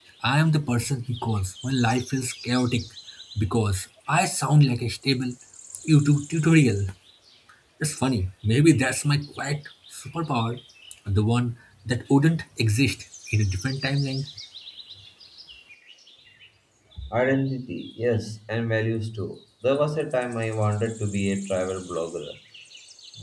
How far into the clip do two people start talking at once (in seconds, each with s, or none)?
none